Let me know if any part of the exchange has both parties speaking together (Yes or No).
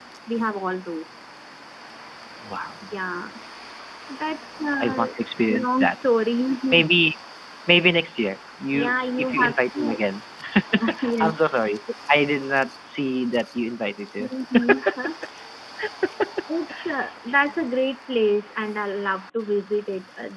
Yes